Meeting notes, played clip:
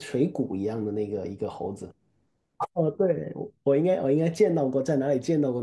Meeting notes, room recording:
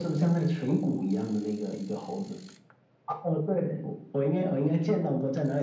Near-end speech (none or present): none